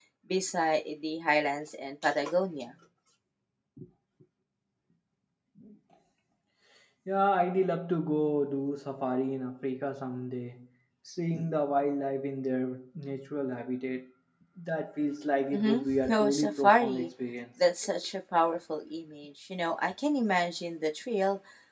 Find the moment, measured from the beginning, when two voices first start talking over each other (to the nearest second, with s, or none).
16 s